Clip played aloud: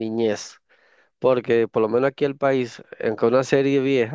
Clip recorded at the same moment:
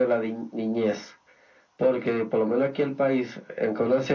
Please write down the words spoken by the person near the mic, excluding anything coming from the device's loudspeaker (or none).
none